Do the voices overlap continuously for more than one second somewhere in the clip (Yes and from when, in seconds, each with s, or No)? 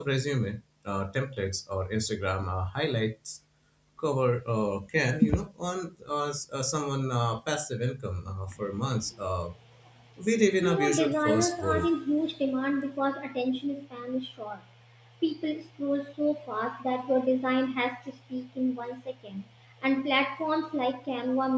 Yes, from 10.6 s